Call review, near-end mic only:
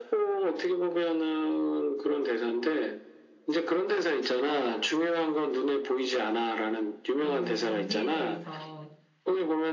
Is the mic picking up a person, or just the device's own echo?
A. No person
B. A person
B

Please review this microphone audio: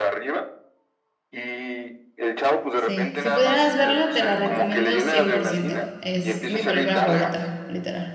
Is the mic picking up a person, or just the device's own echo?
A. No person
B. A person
B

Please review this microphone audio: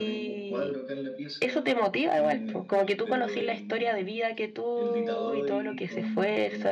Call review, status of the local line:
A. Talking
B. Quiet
A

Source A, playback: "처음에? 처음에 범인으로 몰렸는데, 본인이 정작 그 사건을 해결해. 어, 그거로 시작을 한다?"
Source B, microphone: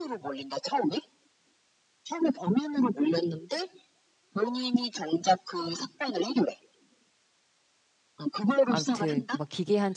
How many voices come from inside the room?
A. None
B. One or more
B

